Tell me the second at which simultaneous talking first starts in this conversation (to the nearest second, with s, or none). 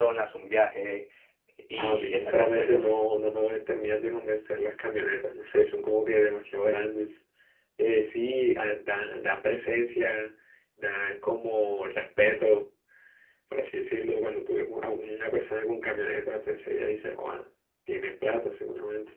2 s